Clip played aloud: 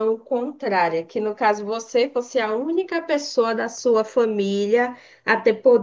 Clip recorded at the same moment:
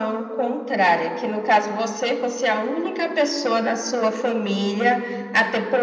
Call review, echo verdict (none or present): present